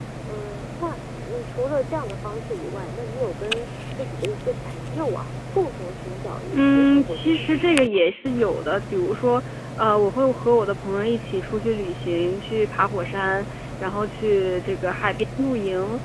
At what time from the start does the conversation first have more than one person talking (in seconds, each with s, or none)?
6.5 s